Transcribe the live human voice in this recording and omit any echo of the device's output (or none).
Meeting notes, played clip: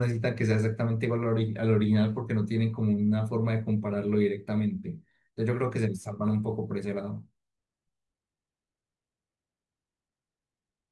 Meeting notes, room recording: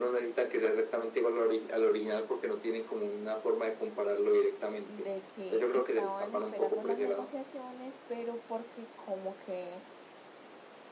de que estaban esperando las negociaciones, pero porque como que